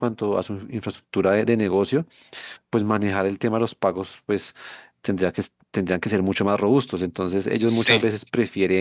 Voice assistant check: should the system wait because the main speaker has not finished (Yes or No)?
Yes